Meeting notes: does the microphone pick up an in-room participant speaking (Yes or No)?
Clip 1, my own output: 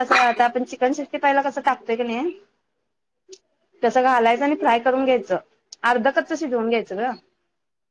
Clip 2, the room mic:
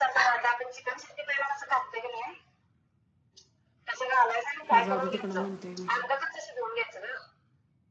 Yes